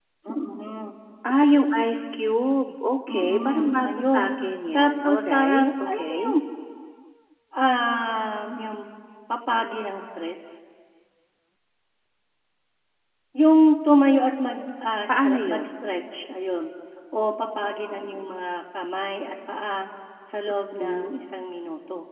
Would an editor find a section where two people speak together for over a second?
Yes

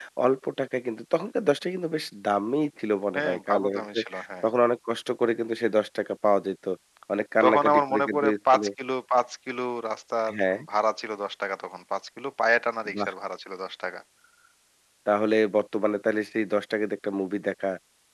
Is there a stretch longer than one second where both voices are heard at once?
Yes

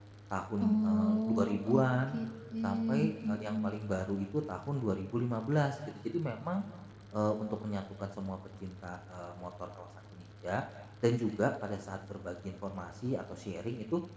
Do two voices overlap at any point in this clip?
Yes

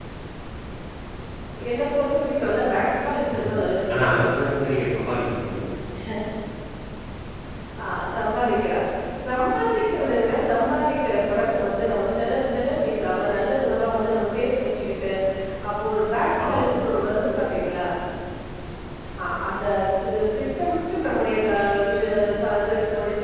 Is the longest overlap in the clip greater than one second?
No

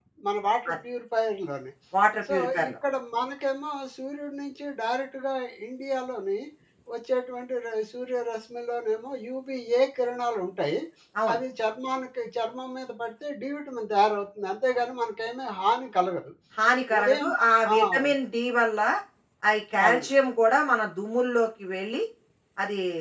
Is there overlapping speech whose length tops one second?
No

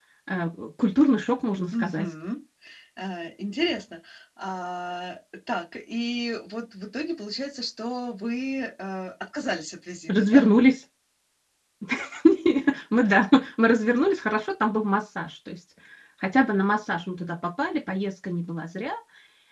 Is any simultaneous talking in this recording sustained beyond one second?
No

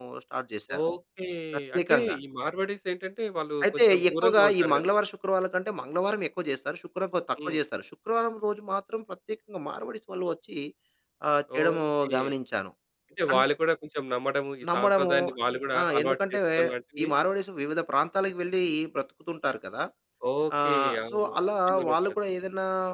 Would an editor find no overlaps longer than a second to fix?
No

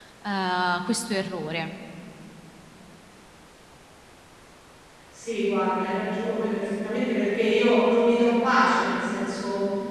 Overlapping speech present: No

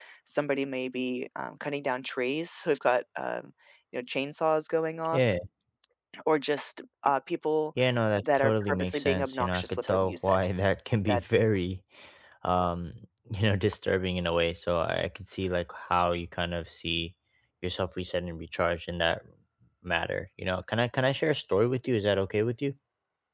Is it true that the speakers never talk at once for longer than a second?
No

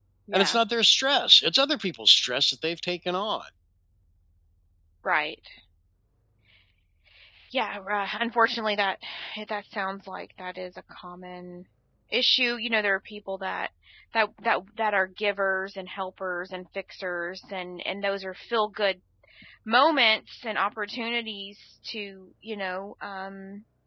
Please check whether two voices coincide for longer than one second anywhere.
No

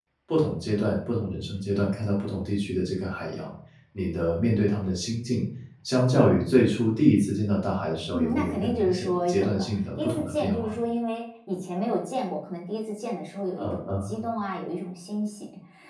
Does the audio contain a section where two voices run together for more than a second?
Yes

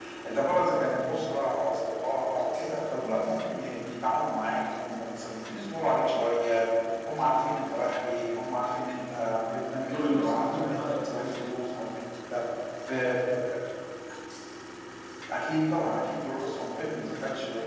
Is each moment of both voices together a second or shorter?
No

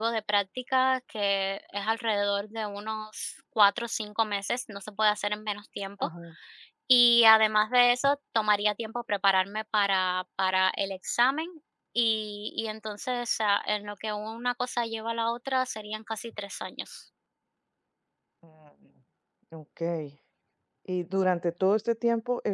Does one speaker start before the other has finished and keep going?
No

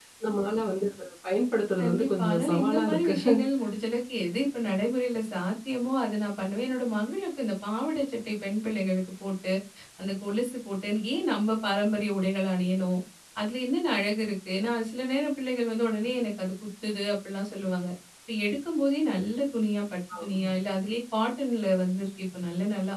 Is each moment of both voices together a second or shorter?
No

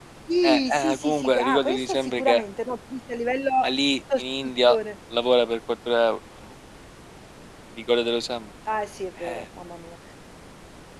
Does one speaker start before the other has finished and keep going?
Yes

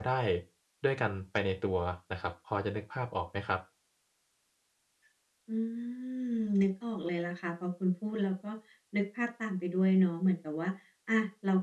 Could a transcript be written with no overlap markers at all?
Yes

